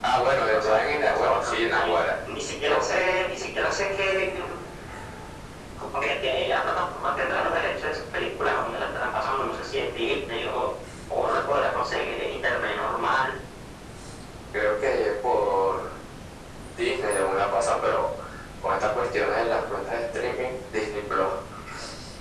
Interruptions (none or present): present